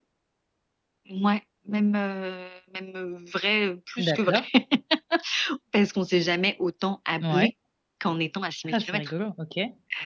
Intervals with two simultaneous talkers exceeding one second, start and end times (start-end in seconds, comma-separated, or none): none